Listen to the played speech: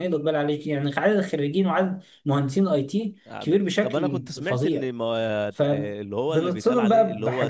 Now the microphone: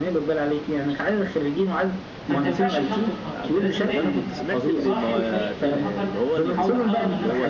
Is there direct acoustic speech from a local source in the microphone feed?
Yes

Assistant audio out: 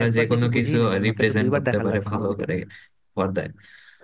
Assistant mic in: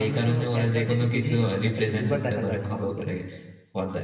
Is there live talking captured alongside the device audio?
No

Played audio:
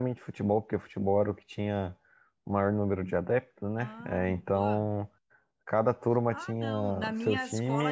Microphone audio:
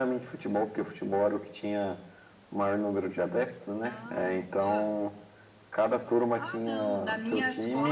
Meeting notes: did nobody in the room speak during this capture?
Yes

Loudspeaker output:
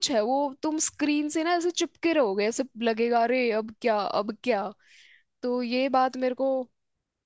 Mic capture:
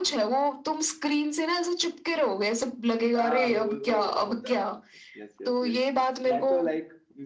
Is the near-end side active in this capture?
Yes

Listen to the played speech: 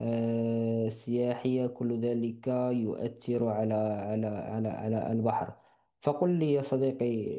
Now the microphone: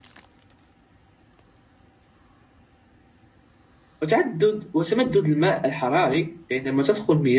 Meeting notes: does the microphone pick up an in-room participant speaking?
Yes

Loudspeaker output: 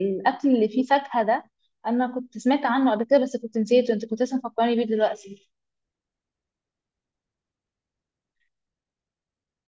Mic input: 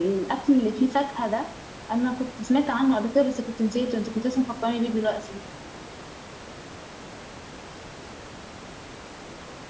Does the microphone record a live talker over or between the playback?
No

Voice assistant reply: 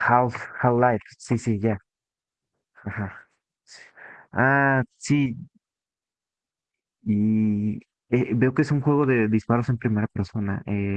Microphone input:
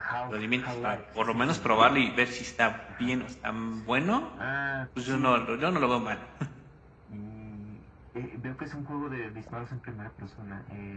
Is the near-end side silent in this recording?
No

